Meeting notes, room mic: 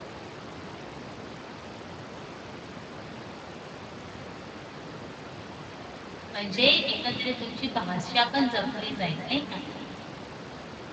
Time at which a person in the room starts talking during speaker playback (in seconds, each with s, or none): 6.3 s